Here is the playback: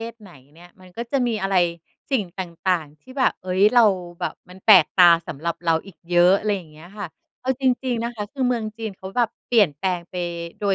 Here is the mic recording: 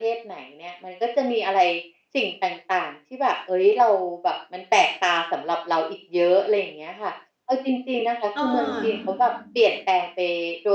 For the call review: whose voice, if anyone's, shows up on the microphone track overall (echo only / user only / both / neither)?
both